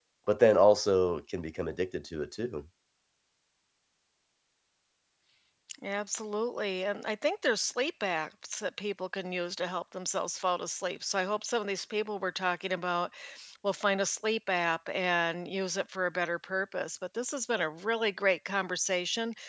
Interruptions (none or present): none